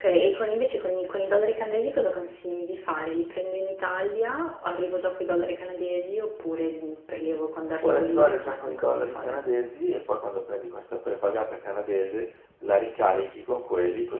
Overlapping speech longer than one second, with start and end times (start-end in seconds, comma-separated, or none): 7.8-9.4